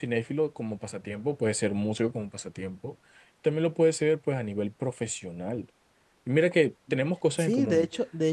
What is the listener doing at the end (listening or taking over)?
taking over